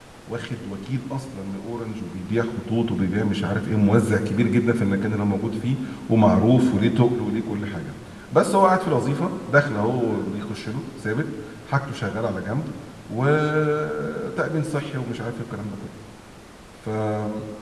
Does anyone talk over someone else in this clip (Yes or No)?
No